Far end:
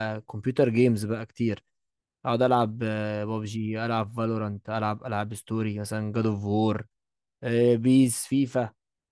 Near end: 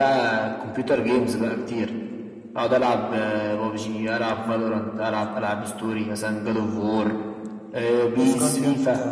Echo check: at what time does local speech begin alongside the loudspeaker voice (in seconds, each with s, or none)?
8.2 s